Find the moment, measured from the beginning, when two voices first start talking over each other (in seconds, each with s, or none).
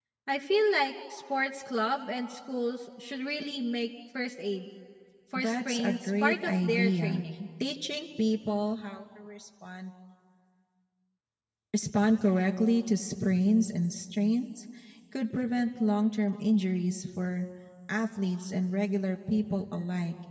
5.3 s